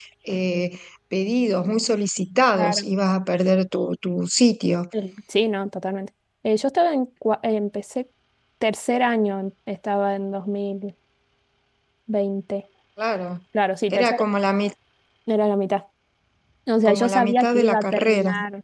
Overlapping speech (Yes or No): Yes